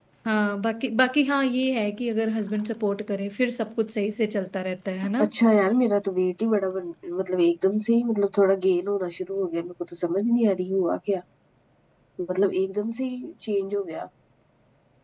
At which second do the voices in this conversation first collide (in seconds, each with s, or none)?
none